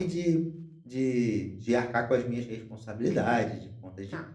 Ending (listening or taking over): listening